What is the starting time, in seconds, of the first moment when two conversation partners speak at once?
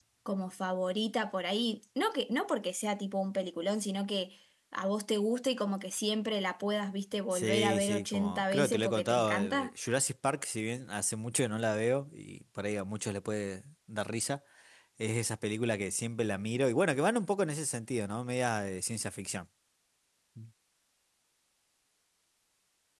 7.3 s

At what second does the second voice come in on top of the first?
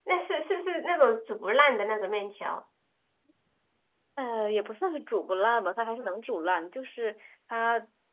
none

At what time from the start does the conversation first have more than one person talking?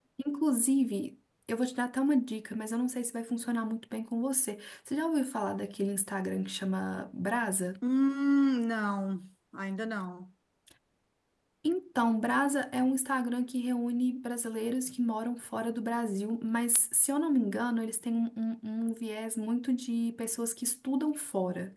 none

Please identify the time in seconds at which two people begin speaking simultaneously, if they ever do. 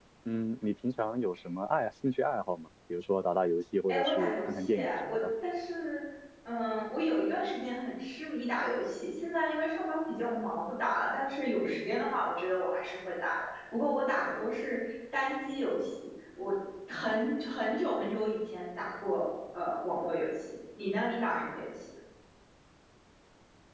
3.9 s

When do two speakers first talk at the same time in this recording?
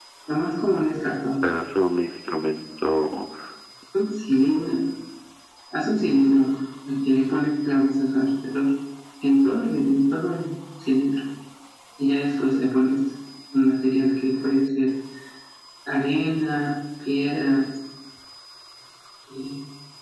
none

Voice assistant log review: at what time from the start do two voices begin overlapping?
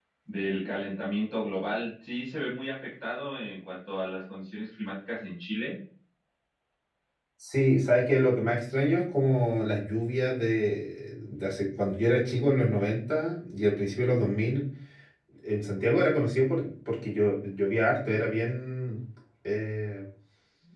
none

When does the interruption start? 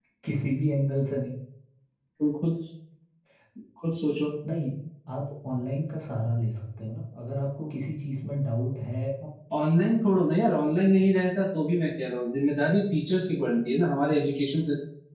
none

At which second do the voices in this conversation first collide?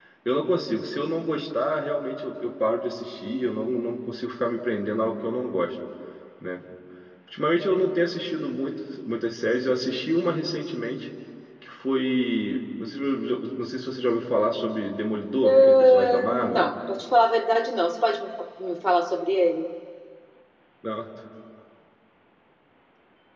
15.4 s

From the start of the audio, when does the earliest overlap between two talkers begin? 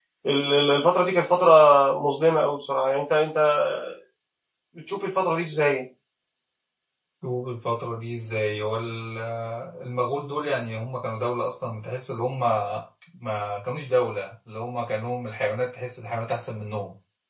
none

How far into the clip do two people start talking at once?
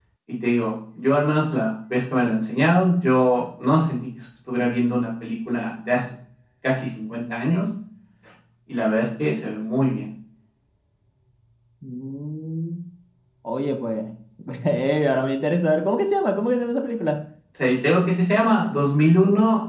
none

